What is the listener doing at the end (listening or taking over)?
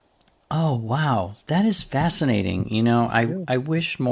listening